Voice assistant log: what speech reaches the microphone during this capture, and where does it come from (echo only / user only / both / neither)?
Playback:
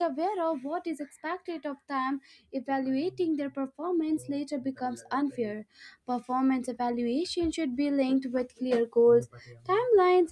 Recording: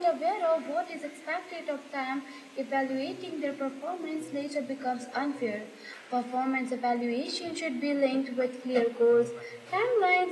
echo only